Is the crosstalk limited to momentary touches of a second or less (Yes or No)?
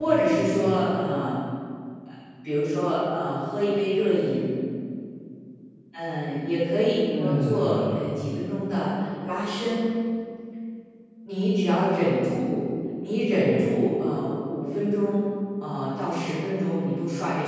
No